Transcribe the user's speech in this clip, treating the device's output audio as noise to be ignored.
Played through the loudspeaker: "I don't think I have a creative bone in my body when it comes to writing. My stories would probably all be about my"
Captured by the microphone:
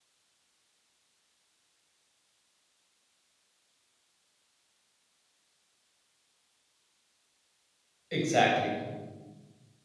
exactly

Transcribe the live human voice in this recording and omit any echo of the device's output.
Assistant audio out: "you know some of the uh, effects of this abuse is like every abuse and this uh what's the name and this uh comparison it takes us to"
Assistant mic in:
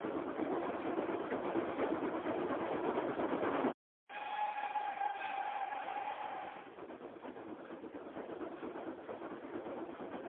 none

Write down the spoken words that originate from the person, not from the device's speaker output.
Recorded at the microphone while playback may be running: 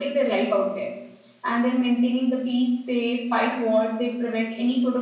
none

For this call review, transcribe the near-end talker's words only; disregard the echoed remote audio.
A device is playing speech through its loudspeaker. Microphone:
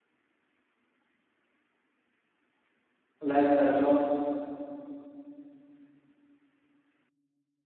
life does not,

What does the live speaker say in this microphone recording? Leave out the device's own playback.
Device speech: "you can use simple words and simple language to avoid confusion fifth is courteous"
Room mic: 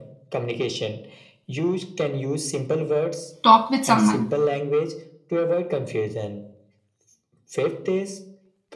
talk with someone,

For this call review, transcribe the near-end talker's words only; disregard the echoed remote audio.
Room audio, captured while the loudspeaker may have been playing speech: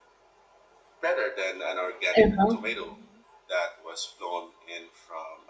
Uh-huh.

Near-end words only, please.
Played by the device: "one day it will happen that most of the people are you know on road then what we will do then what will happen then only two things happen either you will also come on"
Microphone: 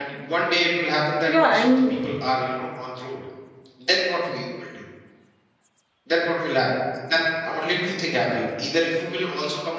yeah i mean

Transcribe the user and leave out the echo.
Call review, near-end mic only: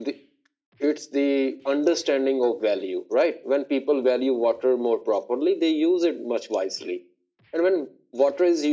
none

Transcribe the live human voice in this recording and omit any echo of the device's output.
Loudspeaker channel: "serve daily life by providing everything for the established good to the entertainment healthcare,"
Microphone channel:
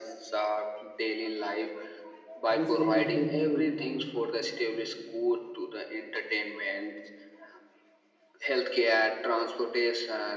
this will be helpful

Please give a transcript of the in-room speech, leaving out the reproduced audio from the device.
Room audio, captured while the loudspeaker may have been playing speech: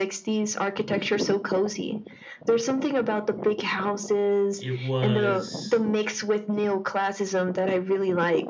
it was

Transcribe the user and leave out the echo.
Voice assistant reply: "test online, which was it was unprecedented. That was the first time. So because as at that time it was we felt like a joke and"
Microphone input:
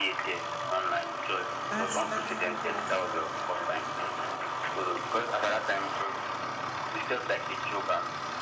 That's that's that's

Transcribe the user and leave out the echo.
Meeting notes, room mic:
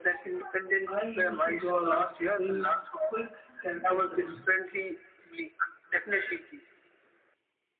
I used to draw a lot of people, quick character studies.

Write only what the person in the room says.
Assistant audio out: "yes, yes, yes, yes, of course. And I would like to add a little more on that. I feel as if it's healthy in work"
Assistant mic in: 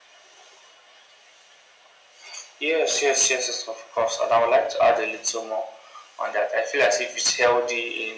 none

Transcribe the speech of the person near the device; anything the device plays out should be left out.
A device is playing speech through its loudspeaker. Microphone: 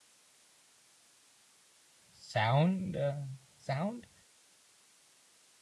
sound. Uh, sound.

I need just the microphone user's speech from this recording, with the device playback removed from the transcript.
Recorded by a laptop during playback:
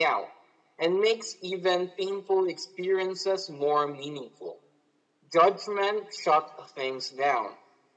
none

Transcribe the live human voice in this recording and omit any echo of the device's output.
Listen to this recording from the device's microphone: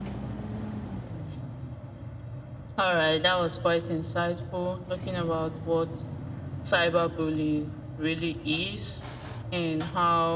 none

